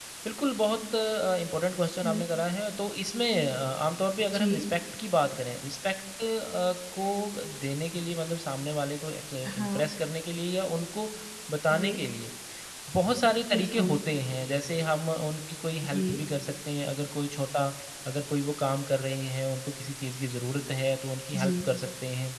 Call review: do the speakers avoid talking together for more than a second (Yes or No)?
Yes